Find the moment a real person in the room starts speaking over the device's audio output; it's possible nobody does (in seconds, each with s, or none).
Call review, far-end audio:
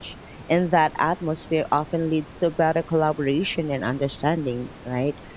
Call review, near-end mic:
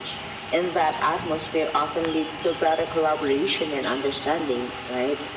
none